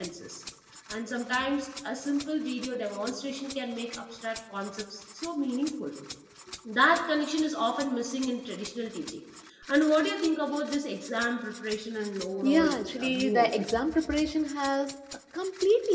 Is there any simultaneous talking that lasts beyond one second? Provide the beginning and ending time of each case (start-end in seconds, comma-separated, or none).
12.4-13.7